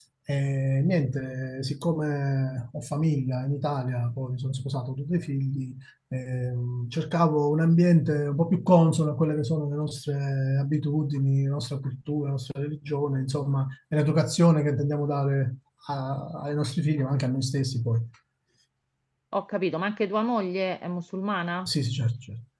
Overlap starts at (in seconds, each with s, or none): none